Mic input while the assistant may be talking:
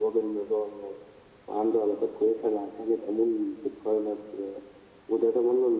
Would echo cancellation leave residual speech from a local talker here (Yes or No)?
No